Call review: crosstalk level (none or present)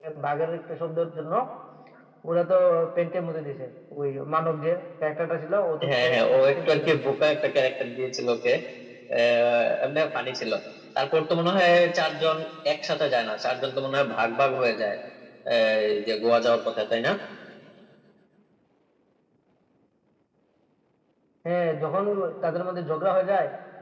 present